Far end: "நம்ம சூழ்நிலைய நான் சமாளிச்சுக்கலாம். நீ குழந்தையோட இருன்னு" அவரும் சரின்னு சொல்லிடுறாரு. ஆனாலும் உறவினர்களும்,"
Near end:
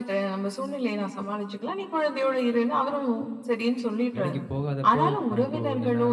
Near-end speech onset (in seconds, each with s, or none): 4.2 s